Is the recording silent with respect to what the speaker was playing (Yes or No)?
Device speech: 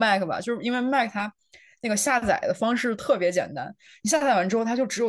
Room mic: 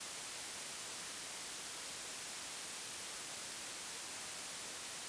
Yes